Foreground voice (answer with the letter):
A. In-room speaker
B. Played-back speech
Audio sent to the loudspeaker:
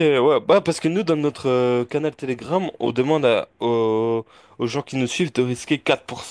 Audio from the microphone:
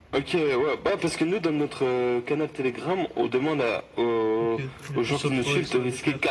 B